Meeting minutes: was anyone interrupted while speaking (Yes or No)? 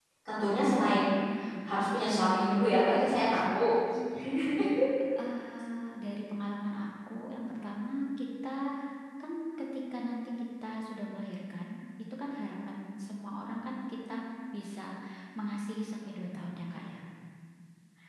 Yes